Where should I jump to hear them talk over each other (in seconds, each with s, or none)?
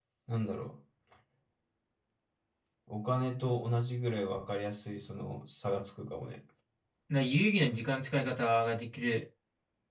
none